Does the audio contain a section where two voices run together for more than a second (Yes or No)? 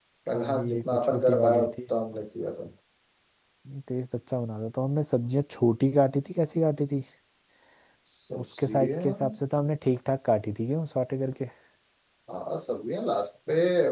Yes